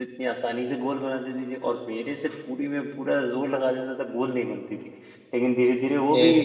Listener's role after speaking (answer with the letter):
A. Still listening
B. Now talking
A